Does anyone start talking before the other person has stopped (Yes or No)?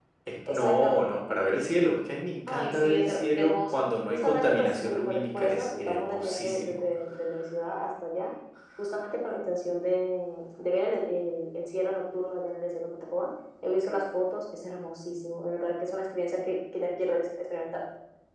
Yes